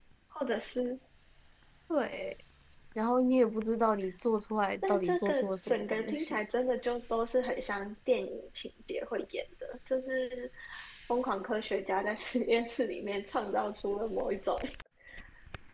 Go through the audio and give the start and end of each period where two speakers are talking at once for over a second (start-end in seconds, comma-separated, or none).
4.9-6.4